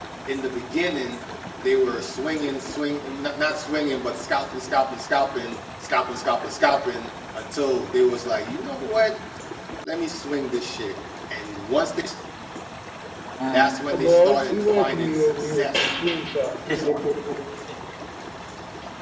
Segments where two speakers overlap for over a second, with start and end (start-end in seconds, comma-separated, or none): 13.9-15.9